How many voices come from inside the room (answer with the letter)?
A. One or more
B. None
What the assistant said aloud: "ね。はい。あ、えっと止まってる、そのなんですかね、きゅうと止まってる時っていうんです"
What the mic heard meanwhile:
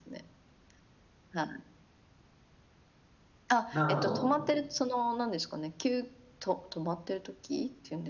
A